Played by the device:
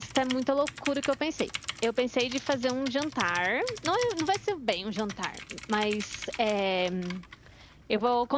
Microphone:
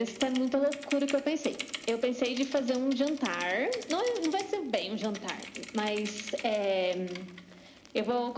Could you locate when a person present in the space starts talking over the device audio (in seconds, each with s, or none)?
none